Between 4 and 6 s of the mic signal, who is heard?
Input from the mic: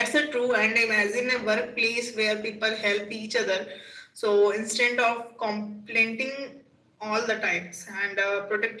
echo only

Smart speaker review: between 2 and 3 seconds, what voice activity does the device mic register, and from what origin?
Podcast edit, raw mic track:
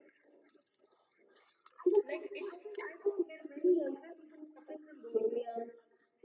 both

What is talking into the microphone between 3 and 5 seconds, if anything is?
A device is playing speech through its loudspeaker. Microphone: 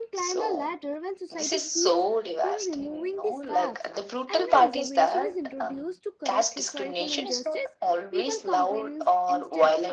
both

